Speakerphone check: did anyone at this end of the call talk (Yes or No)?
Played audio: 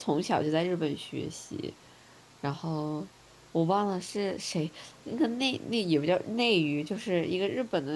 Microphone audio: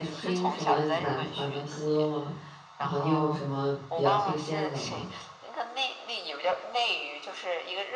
Yes